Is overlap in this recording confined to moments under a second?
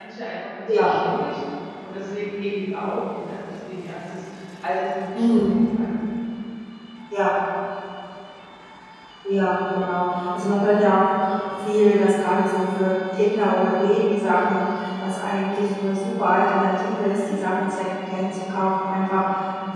Yes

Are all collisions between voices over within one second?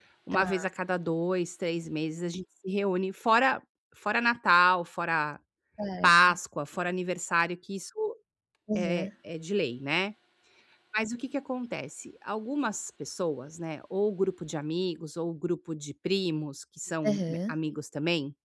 Yes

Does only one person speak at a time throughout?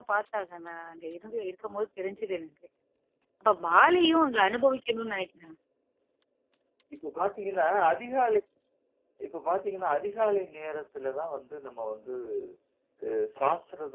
Yes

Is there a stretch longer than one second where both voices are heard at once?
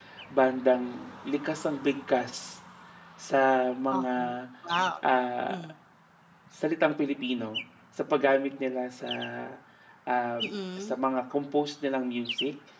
No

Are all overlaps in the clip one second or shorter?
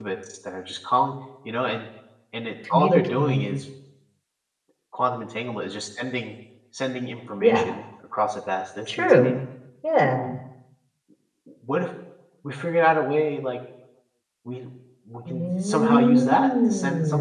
No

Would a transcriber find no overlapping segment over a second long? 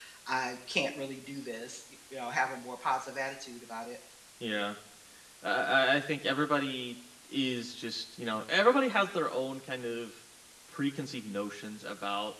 Yes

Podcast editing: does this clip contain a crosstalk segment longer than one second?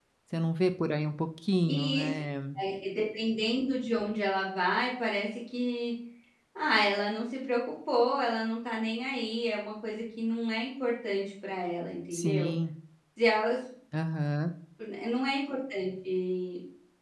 No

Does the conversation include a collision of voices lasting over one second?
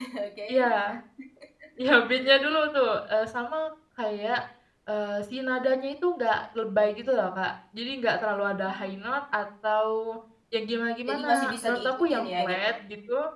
Yes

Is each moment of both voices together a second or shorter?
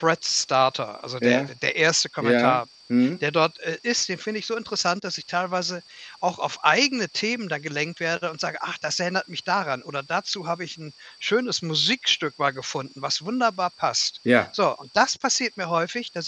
Yes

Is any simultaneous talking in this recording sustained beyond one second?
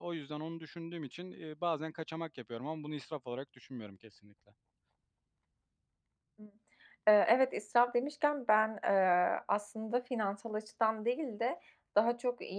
No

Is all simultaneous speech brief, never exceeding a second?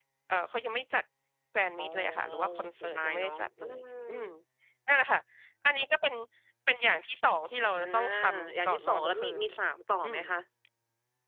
No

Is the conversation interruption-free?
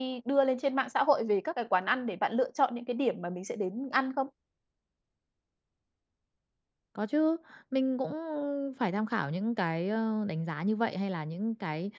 Yes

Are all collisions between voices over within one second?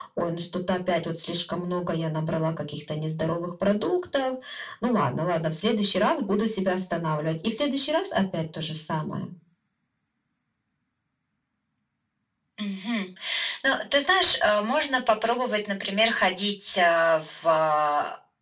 Yes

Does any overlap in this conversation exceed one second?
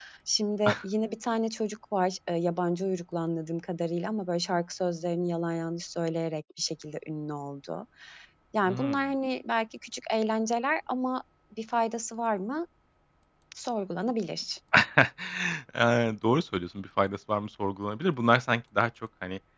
No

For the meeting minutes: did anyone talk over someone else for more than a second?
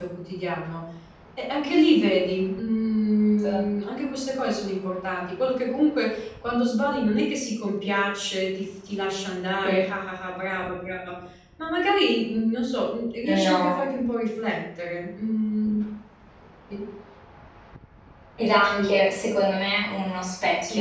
No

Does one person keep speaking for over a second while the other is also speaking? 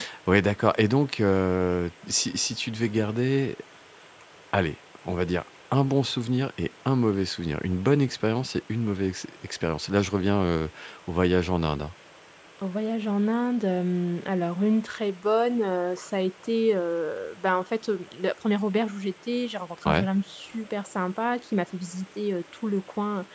No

